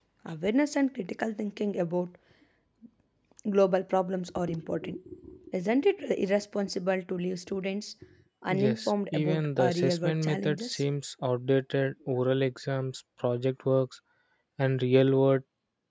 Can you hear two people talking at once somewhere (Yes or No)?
Yes